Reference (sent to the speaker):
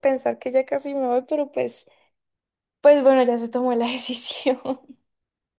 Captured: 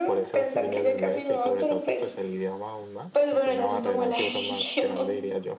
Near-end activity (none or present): present